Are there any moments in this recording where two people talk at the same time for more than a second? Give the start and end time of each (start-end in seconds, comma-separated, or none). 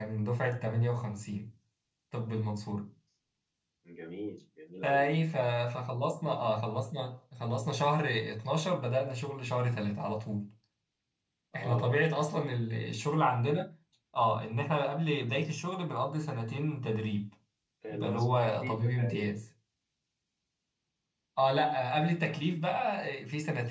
17.9-19.3